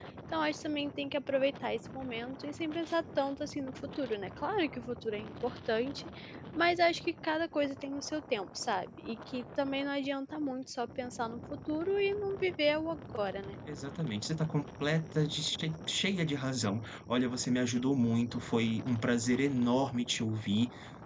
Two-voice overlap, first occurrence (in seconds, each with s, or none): none